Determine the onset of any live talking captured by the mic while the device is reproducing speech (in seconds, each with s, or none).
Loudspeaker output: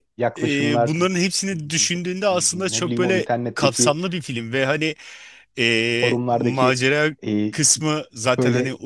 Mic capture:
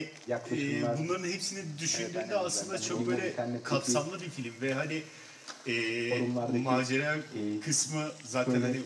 1.9 s